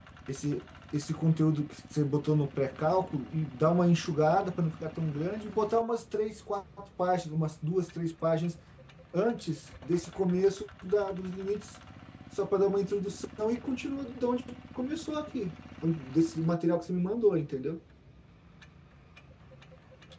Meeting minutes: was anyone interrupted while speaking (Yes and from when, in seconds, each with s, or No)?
No